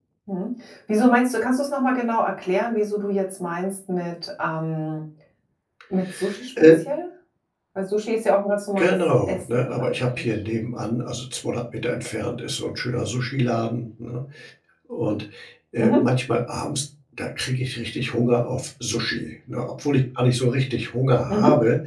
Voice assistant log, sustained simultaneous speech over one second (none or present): present